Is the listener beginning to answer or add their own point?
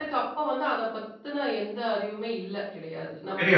No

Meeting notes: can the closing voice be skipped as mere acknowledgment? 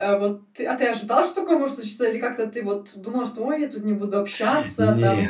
Yes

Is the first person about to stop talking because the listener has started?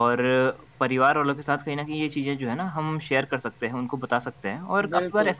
No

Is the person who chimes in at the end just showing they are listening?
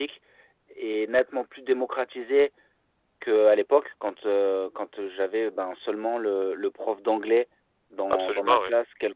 Yes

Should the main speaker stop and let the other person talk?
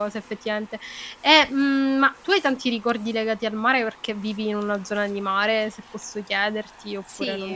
Yes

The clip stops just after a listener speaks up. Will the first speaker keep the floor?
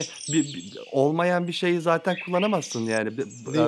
Yes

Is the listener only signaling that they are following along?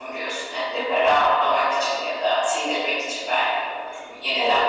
No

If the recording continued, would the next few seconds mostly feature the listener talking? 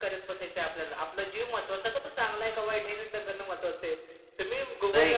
Yes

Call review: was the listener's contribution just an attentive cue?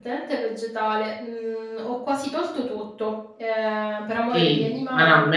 No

